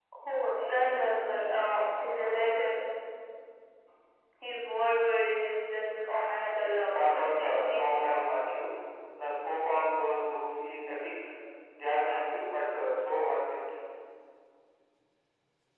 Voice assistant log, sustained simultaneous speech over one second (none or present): present